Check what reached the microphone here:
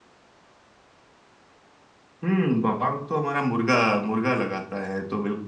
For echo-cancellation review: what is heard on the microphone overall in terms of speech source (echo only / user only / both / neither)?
user only